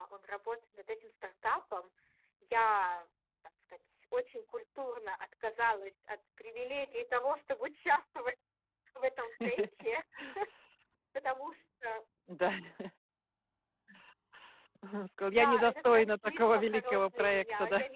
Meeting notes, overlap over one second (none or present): present